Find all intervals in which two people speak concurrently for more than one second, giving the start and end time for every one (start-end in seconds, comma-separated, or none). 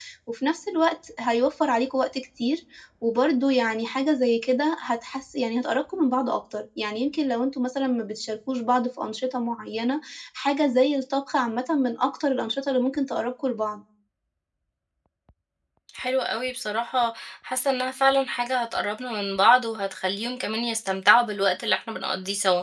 none